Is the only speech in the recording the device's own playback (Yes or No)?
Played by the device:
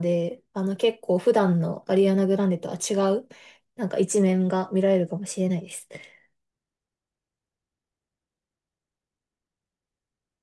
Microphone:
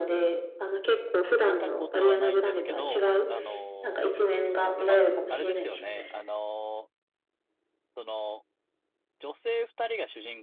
No